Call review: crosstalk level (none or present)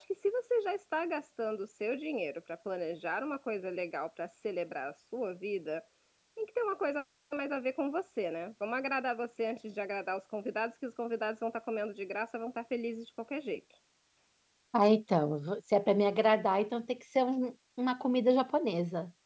none